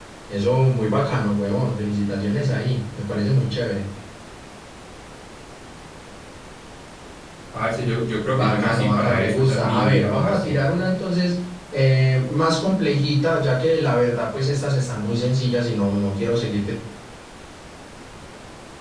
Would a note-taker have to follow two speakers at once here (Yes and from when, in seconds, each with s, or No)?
Yes, from 8.3 s